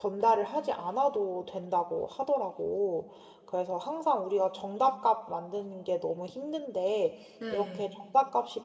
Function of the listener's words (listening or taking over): listening